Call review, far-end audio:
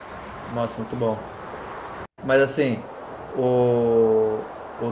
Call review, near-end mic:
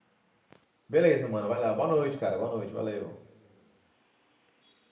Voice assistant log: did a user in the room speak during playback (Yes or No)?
Yes